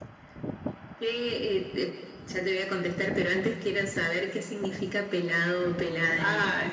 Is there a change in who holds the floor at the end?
Yes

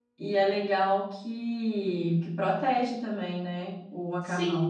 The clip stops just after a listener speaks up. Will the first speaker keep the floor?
No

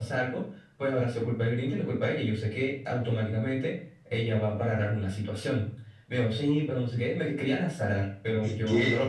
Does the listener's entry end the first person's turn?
Yes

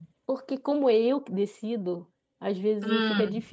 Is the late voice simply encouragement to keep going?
Yes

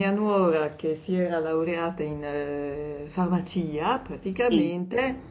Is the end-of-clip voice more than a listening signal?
No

